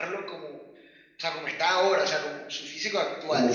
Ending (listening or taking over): taking over